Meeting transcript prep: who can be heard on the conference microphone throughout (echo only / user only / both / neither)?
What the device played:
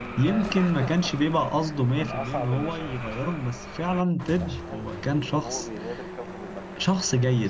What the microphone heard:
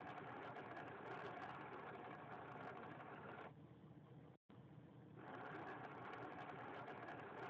neither